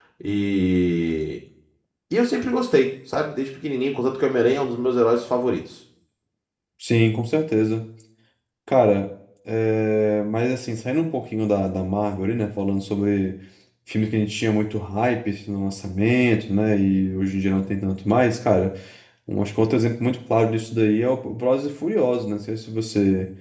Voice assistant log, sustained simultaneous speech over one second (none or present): none